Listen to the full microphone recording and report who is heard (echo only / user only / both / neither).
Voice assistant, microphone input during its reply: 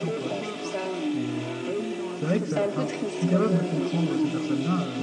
both